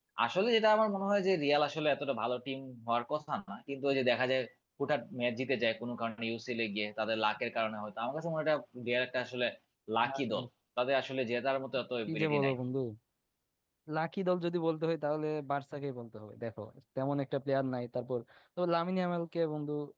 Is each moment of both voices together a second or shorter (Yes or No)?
Yes